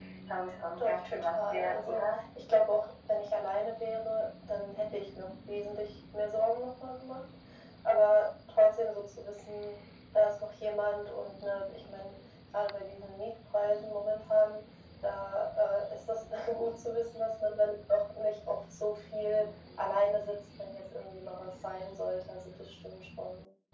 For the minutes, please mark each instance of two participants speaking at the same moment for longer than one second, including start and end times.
0.8-2.2

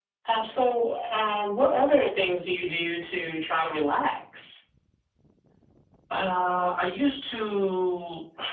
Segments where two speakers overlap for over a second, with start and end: none

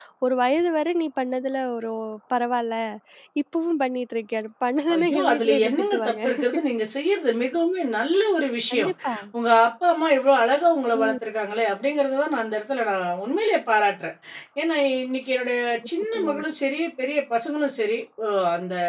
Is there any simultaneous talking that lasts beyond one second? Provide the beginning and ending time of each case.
4.9-6.2

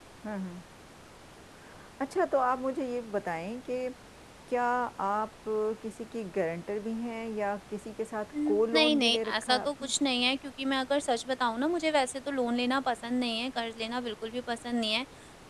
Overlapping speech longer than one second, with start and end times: 8.5-9.9

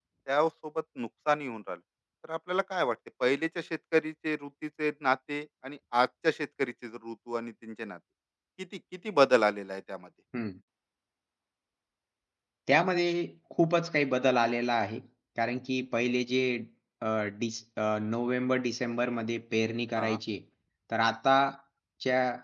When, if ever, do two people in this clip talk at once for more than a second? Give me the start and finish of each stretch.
none

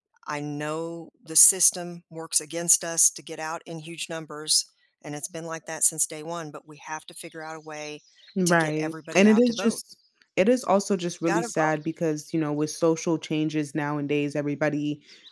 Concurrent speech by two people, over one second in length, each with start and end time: 8.5-9.8

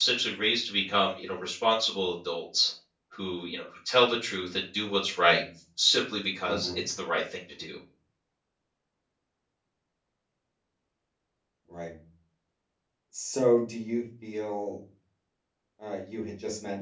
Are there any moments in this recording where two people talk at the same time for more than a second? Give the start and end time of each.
none

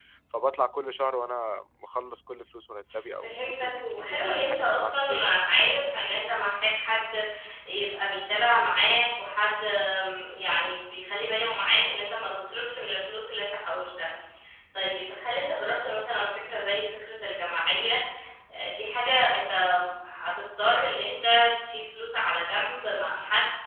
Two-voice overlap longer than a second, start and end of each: 3.2-5.4

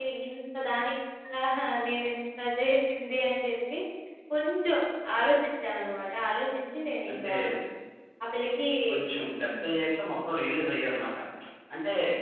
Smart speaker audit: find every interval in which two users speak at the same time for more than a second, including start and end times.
none

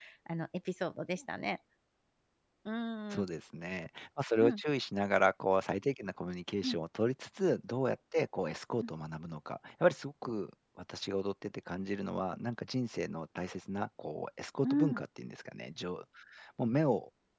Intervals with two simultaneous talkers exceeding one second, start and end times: none

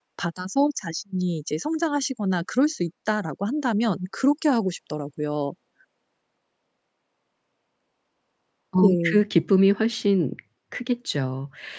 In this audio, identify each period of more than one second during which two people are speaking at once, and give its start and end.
none

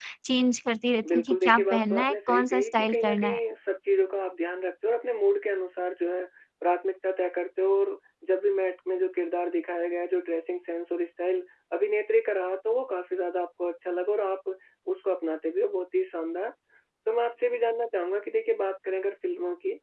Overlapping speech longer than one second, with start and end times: 1.1-3.4

